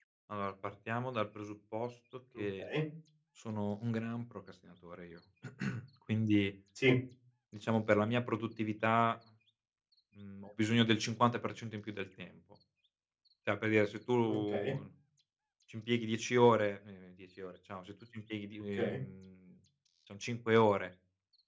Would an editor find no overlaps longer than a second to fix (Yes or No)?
Yes